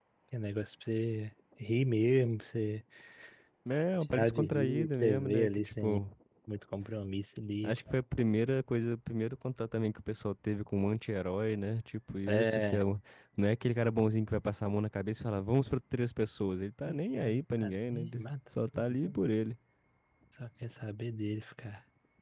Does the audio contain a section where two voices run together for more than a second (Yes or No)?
Yes